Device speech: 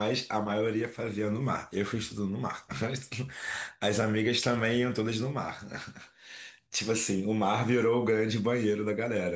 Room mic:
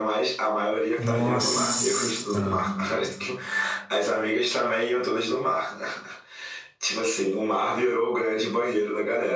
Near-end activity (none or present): present